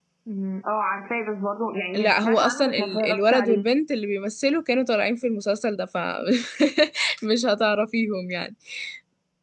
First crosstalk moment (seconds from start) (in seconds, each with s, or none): 1.9 s